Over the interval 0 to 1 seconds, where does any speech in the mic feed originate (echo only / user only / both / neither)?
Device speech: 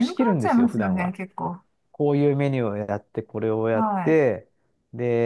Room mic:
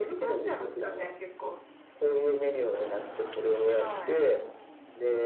echo only